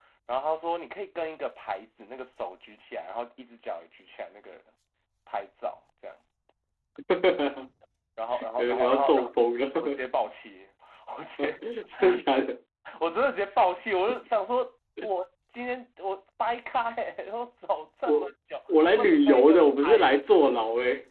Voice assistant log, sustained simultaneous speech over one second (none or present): present